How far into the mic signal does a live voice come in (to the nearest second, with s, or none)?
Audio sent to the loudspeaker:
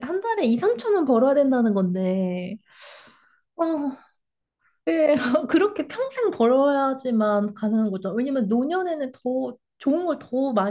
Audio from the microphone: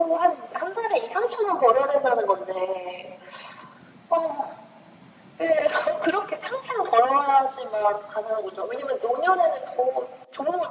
none